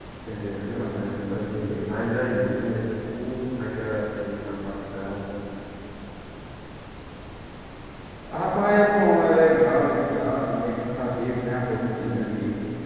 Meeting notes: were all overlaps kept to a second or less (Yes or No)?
No